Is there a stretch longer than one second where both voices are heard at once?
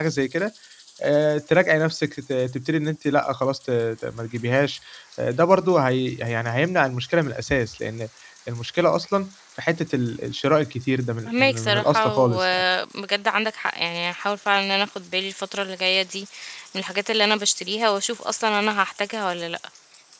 Yes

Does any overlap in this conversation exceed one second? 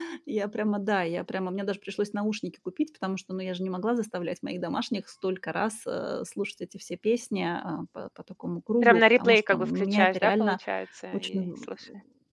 Yes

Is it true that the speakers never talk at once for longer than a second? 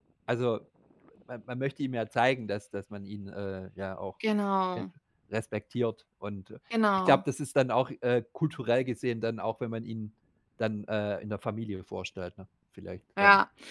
Yes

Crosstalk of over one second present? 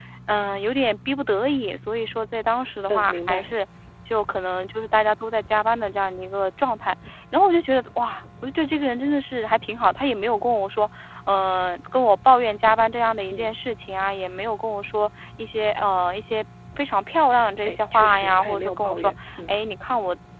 Yes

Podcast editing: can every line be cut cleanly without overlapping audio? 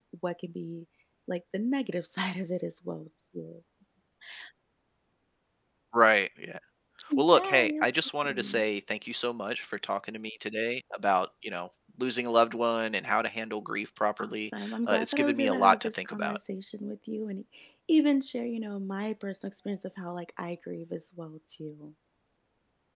No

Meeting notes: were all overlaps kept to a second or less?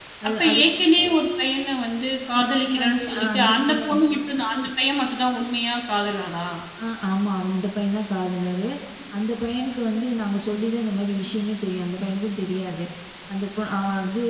No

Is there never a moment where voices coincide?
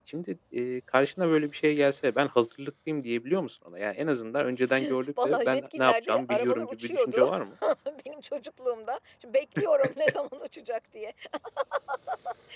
No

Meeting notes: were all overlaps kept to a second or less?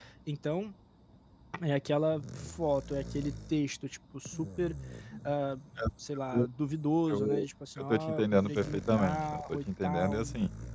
No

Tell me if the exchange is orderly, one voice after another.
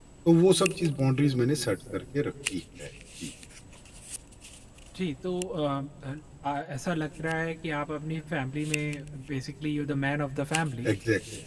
Yes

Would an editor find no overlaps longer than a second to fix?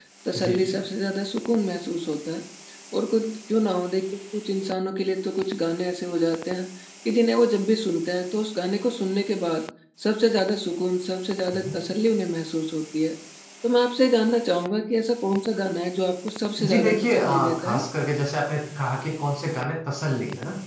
No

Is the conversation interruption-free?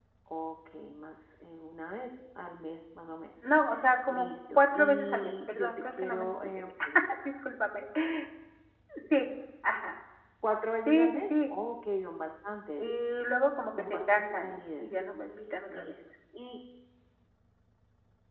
No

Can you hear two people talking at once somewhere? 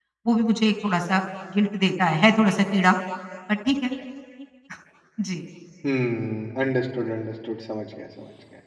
No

